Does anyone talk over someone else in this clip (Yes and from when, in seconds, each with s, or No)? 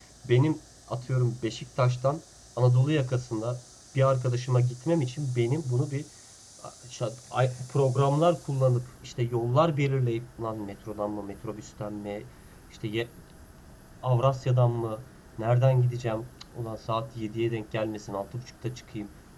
No